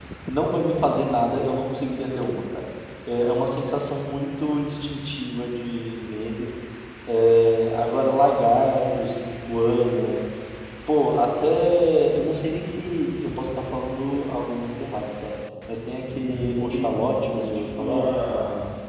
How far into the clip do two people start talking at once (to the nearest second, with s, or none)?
16 s